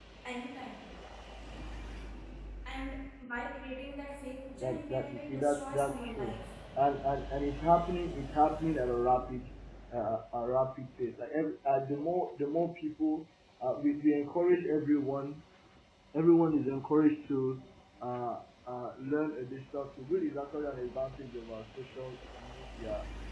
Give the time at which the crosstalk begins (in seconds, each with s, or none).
4.6 s